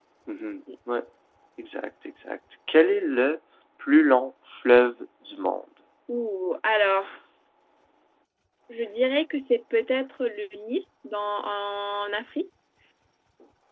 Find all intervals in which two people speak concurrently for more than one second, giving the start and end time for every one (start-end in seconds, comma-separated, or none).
none